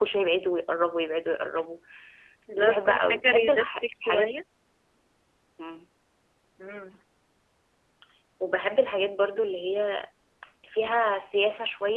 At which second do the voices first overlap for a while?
2.5 s

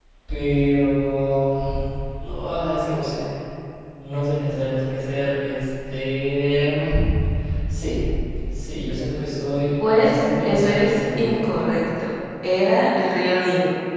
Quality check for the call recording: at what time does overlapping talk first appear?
9.8 s

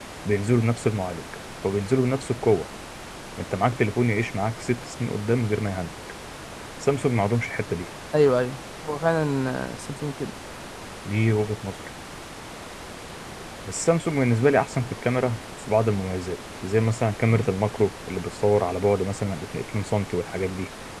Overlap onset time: none

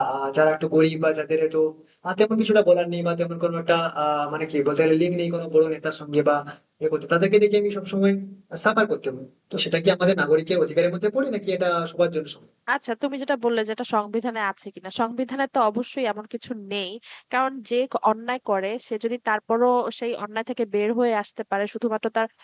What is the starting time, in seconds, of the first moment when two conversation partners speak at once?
none

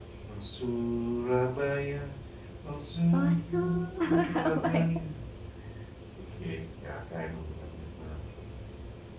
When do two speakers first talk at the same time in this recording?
3.1 s

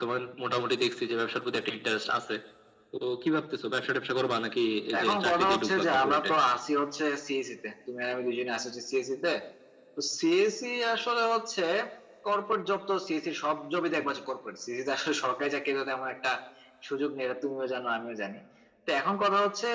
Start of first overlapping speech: 4.9 s

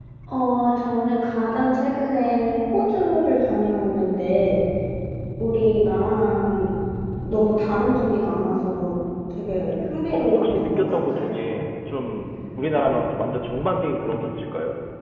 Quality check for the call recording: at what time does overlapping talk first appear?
10.1 s

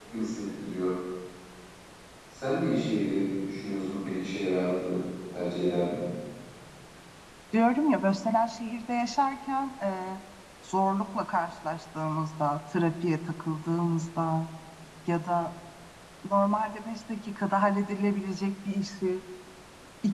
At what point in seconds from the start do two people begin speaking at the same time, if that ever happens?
none

